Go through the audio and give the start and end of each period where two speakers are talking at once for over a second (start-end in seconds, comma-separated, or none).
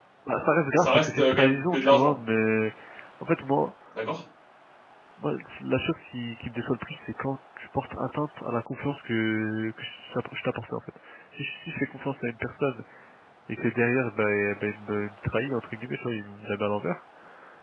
0.8-2.1